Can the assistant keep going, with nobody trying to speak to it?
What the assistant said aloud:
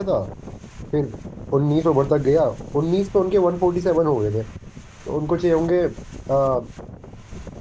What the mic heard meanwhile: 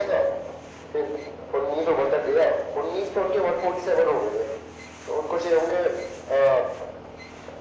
Yes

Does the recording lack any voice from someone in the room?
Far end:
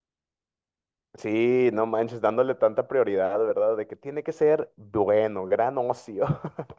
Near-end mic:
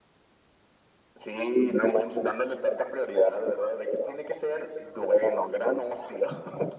Yes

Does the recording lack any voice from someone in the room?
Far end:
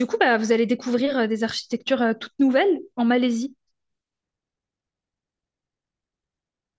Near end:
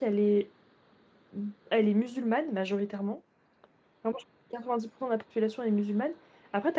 No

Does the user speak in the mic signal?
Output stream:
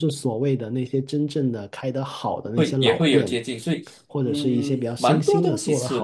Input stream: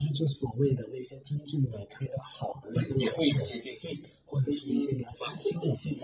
No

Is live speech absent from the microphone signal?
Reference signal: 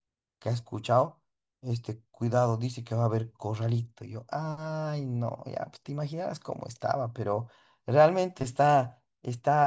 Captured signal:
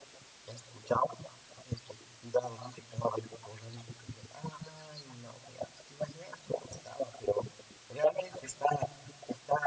Yes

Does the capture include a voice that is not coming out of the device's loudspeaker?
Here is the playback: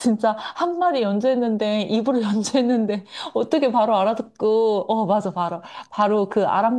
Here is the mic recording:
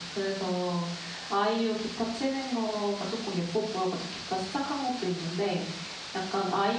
Yes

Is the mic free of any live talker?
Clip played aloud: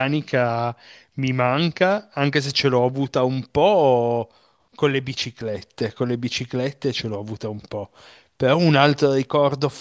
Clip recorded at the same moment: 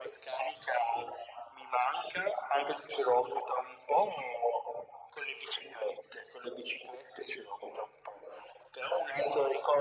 Yes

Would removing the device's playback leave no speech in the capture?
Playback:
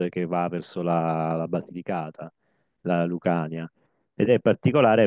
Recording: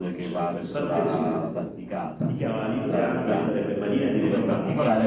No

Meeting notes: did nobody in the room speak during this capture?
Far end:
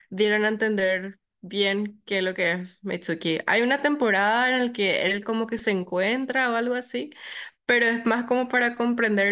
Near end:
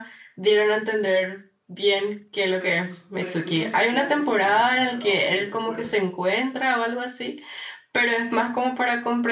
No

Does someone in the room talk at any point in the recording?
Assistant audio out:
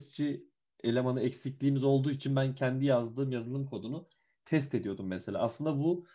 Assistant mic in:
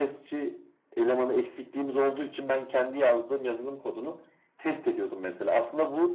No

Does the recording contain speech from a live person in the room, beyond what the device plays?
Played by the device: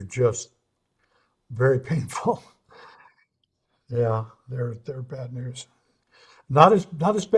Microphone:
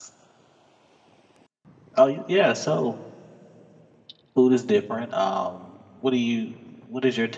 Yes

